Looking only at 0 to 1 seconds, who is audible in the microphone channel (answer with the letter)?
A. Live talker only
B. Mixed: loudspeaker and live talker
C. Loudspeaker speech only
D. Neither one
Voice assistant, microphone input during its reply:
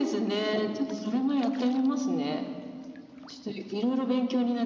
C